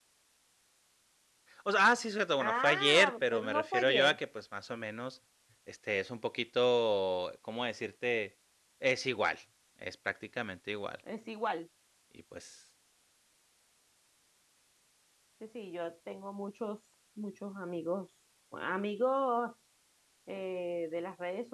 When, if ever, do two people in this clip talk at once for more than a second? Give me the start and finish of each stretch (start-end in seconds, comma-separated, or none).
2.4-4.2